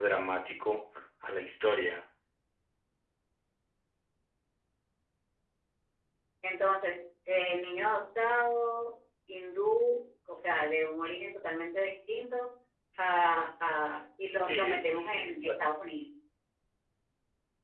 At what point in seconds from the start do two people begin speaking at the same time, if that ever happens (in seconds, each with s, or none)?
14.2 s